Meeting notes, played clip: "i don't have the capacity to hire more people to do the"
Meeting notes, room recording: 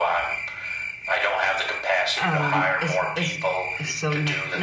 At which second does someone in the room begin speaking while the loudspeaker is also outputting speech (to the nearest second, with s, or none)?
2 s